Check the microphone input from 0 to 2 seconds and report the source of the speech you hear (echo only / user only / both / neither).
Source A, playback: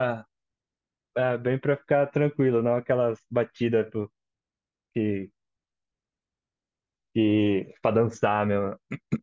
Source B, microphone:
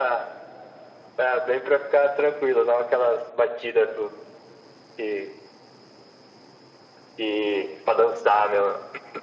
echo only